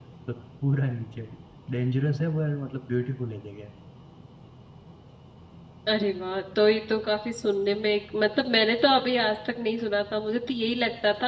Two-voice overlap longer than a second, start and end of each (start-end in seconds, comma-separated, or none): none